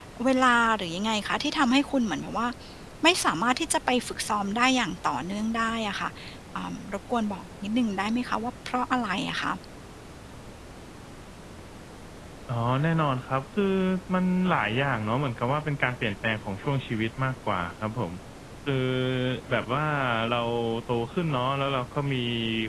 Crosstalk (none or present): none